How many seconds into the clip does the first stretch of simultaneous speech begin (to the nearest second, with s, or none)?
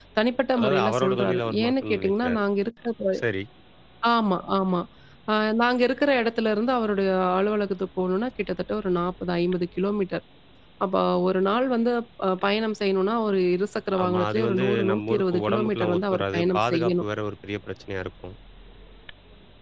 1 s